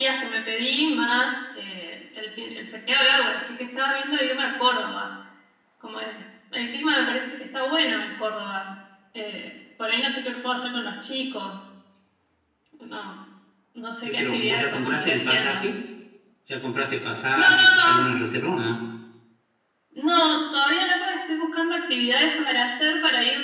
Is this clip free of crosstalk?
No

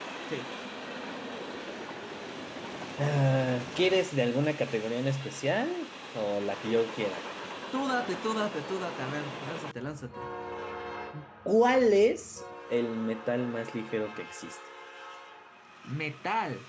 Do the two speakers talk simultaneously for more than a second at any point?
No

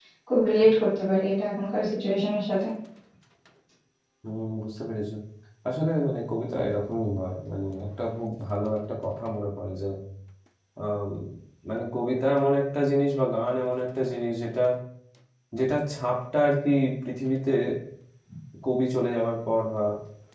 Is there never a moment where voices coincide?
Yes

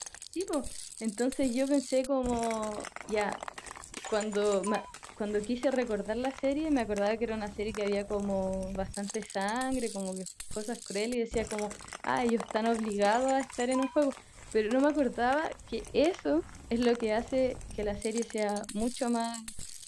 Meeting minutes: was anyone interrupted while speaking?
No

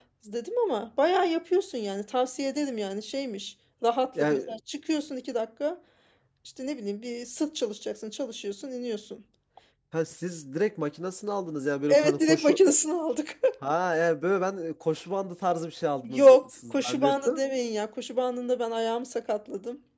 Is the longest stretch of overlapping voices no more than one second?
No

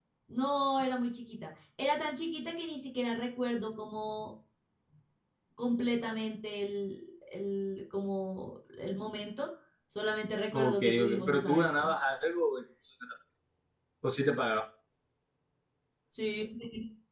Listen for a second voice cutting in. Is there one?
Yes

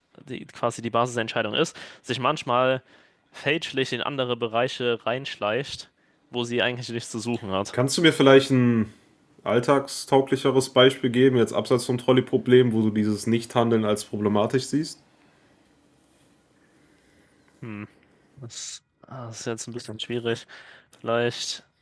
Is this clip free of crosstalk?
Yes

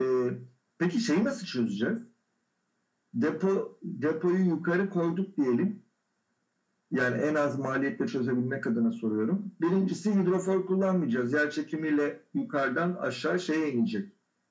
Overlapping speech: No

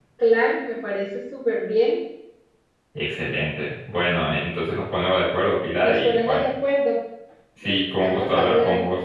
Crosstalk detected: Yes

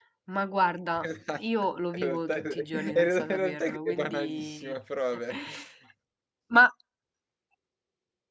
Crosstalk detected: Yes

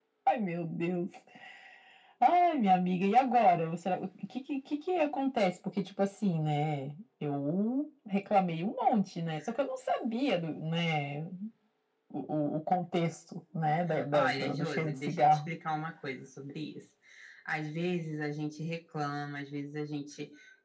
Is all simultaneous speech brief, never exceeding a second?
No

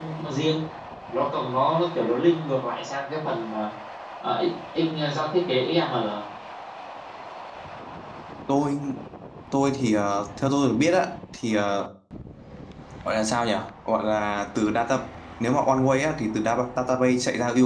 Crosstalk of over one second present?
No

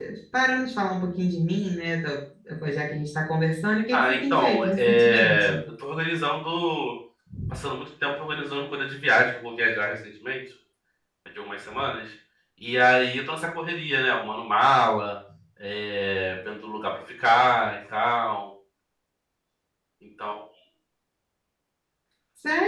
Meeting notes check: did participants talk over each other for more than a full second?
Yes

